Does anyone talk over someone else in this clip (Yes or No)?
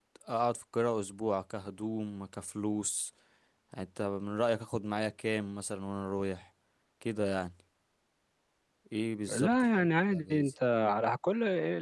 Yes